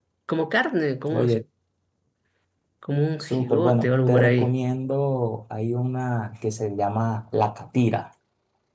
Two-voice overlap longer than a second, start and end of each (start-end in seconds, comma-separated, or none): 3.2-4.5